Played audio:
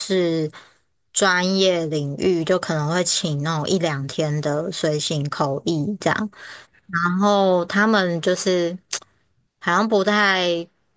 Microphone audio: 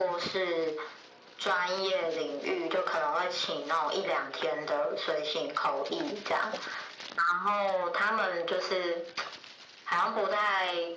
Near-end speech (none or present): none